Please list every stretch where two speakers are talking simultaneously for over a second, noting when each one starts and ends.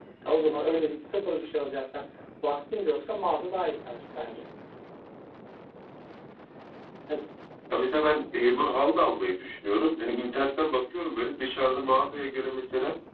none

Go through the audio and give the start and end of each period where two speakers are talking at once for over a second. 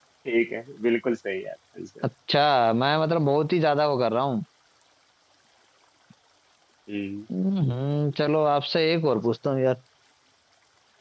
none

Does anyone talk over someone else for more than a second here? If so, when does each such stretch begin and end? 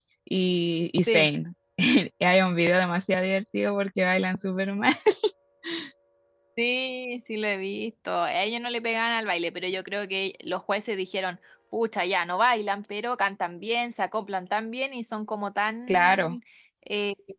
none

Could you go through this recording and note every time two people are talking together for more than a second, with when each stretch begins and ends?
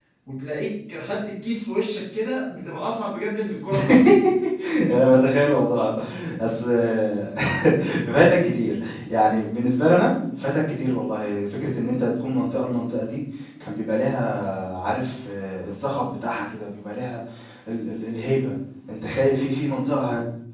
none

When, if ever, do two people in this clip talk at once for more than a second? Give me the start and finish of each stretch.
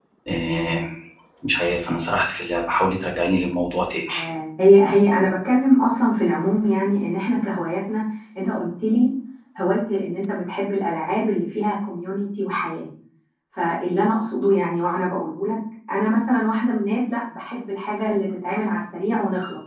none

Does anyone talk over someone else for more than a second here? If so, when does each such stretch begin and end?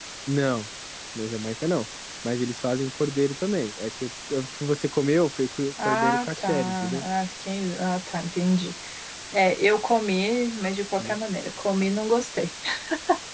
5.8-7.0

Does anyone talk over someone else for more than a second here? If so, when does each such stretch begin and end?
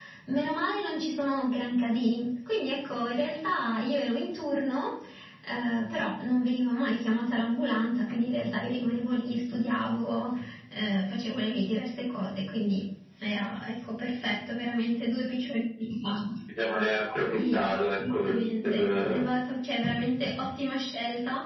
17.3-19.2

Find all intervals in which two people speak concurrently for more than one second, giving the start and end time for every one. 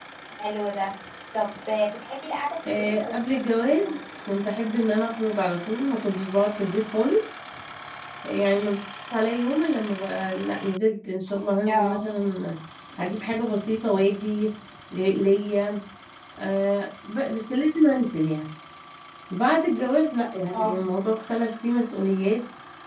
2.7-4.0

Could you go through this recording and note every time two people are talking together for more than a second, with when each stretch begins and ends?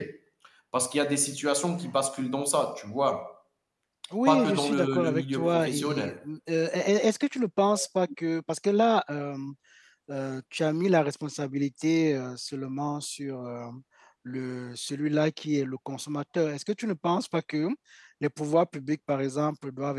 4.3-6.1

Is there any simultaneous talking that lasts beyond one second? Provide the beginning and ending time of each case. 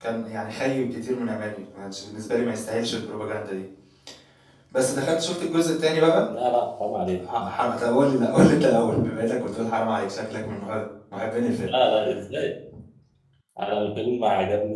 none

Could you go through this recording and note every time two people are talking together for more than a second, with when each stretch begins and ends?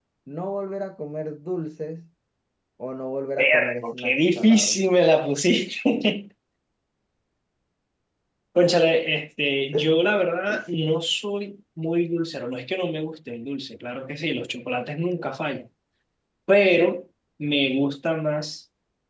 3.4-4.8

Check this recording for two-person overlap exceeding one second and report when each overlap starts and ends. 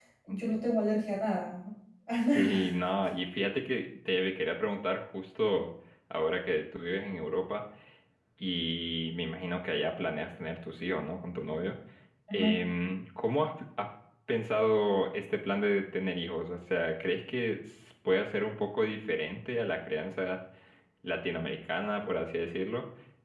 none

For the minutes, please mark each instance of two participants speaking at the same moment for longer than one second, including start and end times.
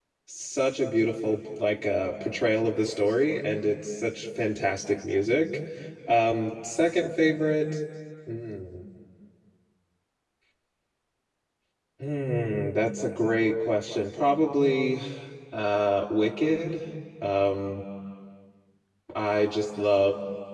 none

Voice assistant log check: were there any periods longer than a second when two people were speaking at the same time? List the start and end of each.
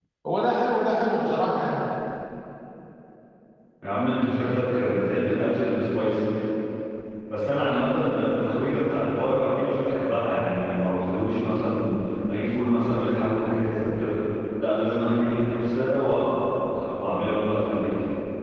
none

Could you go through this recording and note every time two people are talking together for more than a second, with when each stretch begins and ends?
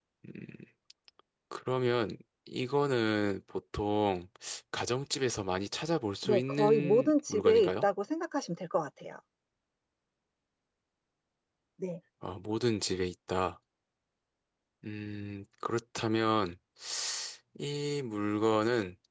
6.2-7.7

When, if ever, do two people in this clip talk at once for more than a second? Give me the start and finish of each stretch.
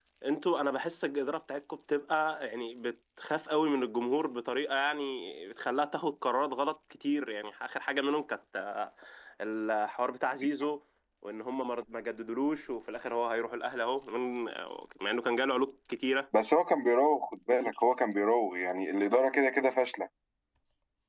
none

